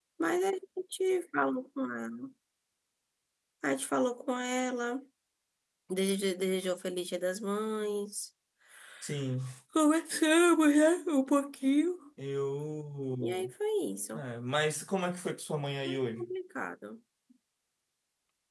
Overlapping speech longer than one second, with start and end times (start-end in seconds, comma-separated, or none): none